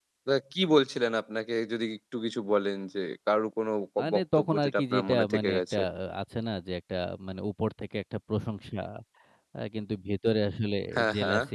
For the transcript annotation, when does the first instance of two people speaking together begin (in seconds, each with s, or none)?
4.0 s